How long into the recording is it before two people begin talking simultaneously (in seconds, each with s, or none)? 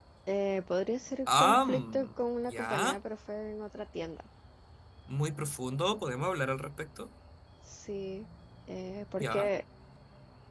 1.4 s